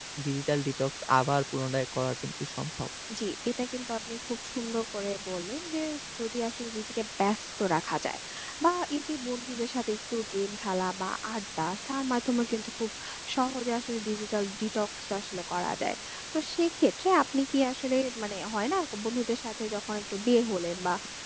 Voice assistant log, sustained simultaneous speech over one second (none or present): none